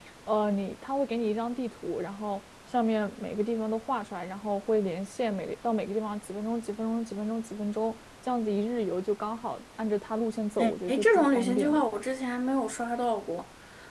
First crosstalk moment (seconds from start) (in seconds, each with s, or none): 10.6 s